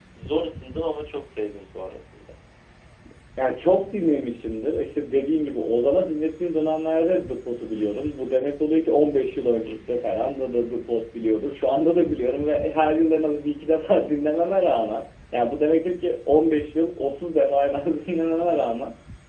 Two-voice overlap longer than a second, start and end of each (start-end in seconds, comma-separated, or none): none